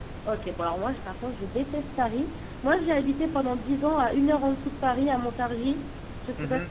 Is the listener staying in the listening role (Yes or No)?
No